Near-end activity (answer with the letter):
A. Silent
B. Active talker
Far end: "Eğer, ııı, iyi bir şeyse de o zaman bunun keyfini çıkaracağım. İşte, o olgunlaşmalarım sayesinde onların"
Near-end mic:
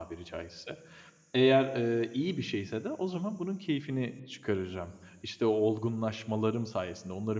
A